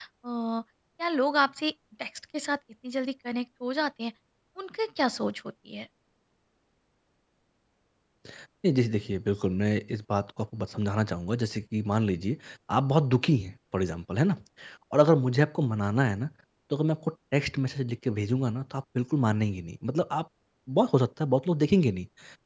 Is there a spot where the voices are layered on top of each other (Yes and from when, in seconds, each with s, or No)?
No